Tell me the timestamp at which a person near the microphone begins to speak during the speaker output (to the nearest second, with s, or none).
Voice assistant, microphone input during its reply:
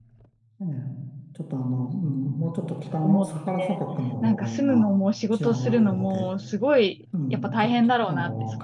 3 s